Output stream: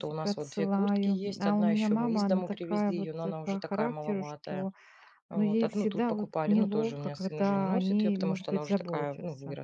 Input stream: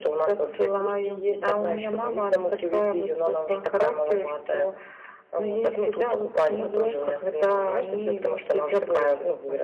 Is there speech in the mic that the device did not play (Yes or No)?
No